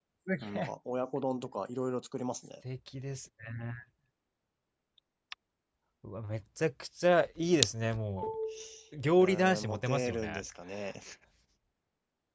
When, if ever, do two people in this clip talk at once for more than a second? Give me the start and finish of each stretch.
9.2-10.4

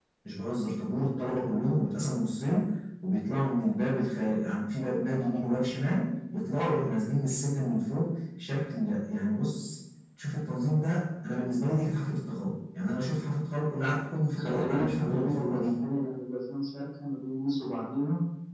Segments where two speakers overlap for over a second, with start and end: 14.4-15.7

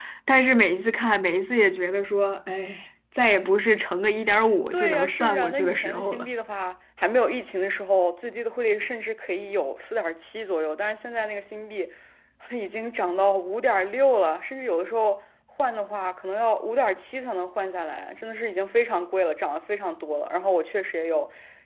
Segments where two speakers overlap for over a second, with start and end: 4.7-6.3

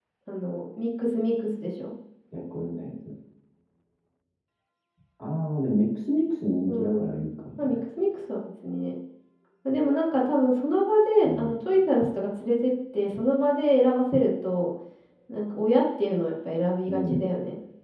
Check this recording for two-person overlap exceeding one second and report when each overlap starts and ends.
none

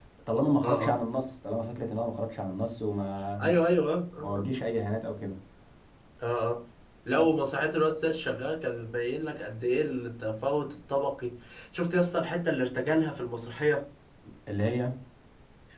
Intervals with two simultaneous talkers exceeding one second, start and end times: none

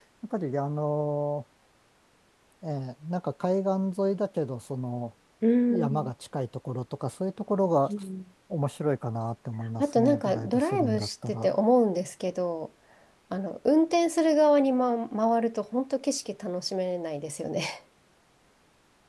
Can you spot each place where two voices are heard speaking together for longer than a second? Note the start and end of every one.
9.8-11.6

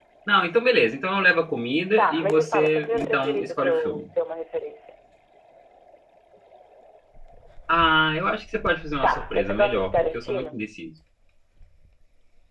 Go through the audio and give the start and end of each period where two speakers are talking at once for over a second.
2.0-4.0, 9.0-10.6

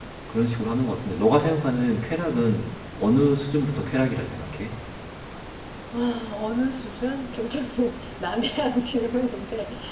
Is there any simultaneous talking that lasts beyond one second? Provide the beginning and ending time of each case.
none

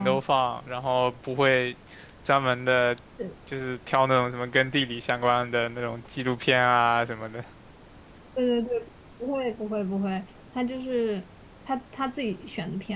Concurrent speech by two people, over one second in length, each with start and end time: none

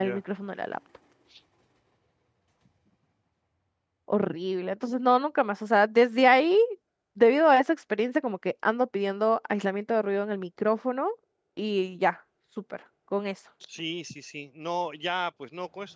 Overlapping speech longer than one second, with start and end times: none

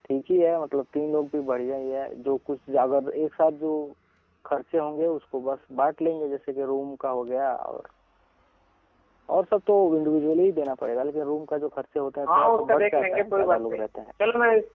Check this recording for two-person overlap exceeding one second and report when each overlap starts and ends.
12.3-13.8

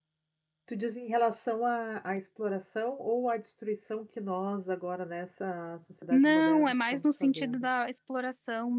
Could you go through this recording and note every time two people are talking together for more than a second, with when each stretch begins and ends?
6.1-7.7

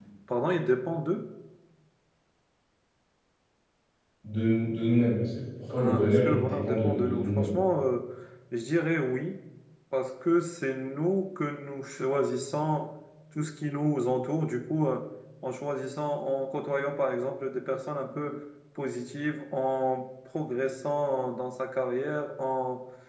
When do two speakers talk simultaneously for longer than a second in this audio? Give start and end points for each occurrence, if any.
5.7-7.6

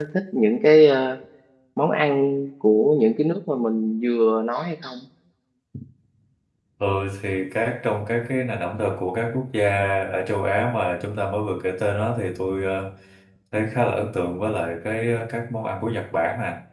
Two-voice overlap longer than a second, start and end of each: none

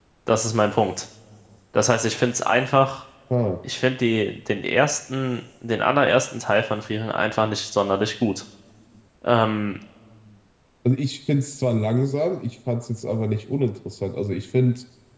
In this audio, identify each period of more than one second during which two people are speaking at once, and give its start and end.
none

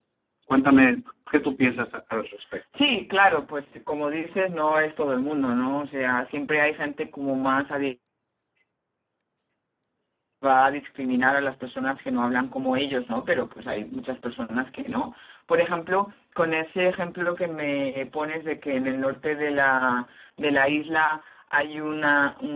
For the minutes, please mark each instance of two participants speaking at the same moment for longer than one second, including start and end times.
none

